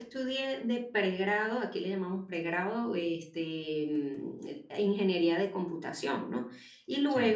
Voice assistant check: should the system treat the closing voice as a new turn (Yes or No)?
No